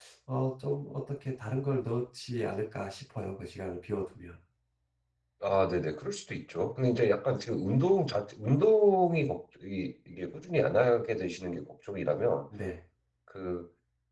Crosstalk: none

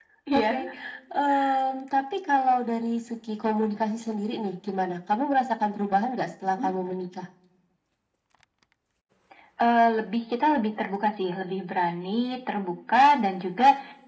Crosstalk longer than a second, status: none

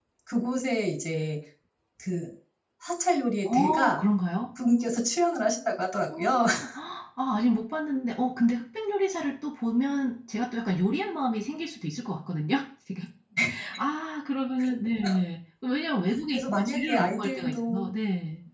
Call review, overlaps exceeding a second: present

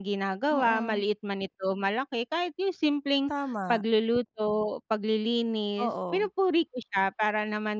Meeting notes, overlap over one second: none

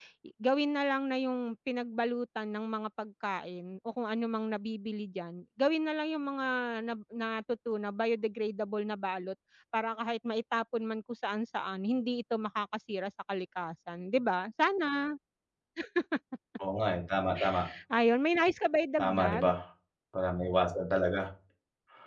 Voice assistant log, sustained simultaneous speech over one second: none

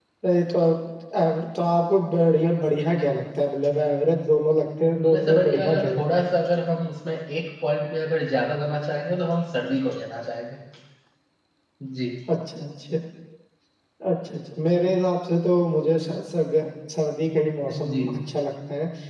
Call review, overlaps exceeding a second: present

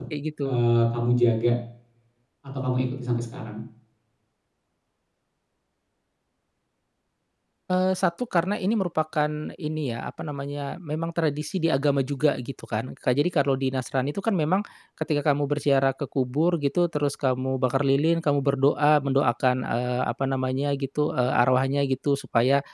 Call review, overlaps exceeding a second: none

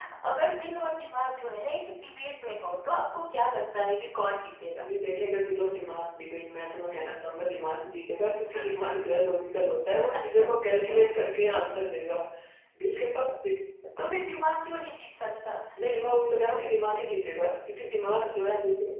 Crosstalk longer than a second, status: none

